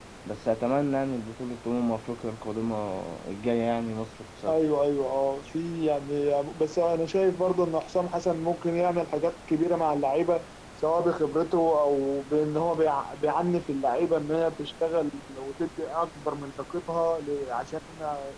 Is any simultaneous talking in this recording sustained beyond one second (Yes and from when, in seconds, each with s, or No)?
No